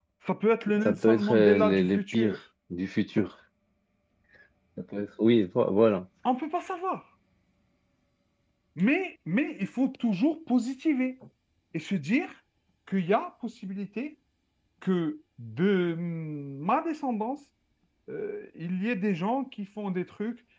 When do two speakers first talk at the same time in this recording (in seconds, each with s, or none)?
0.8 s